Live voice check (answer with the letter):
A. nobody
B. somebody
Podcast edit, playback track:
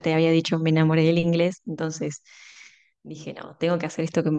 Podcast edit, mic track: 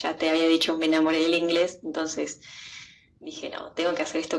A